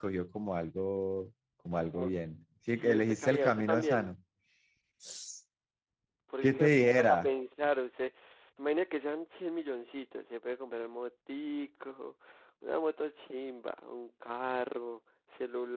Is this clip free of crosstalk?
No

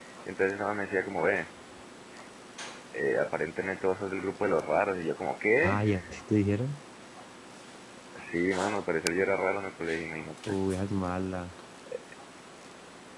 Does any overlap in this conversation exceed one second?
No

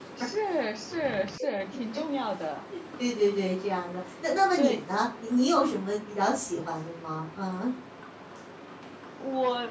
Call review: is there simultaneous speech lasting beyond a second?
No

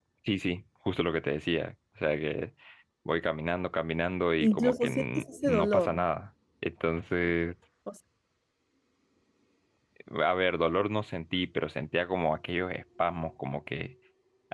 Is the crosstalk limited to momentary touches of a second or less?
No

